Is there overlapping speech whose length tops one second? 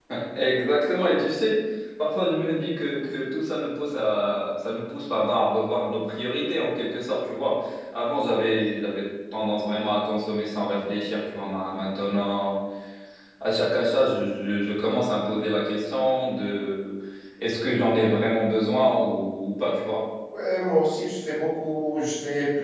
No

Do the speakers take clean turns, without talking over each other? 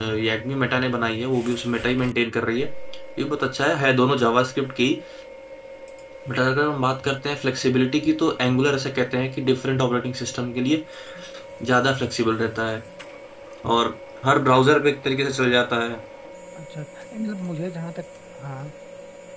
Yes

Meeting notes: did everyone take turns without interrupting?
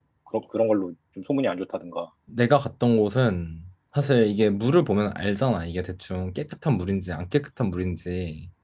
Yes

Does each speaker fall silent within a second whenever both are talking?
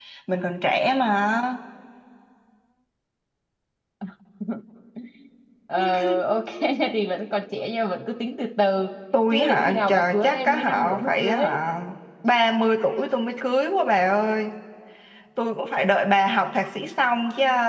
No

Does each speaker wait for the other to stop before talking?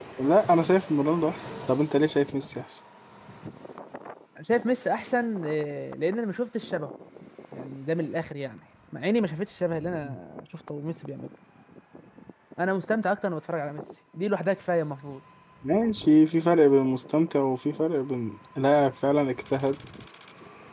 Yes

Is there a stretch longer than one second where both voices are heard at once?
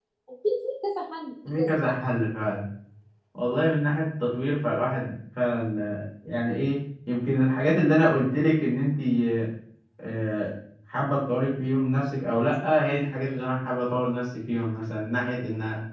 No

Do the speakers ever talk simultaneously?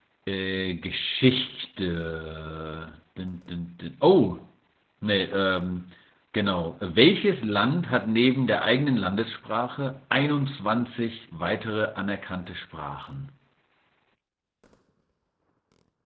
No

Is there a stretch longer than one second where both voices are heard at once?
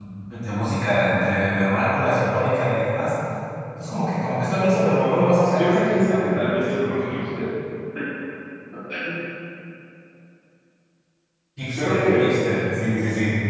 Yes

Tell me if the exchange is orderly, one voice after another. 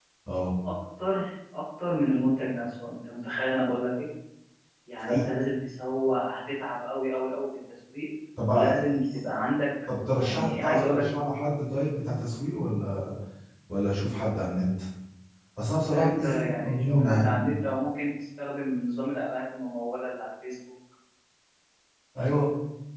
No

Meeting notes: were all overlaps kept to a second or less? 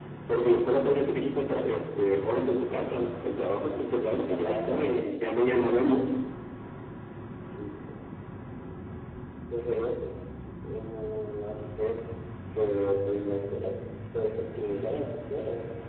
No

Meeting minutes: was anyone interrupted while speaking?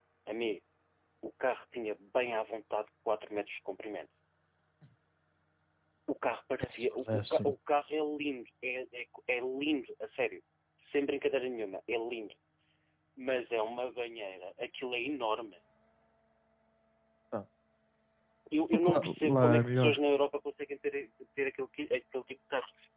Yes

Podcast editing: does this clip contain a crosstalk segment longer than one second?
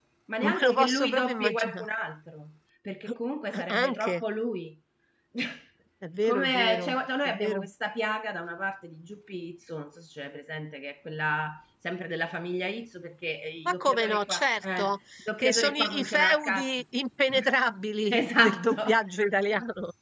Yes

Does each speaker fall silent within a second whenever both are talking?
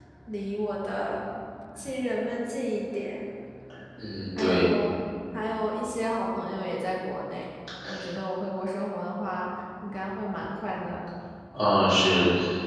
Yes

